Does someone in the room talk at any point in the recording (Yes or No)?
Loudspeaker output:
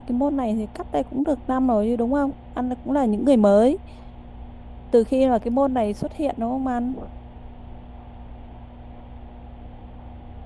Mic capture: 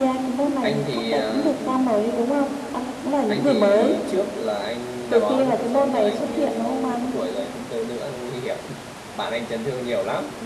Yes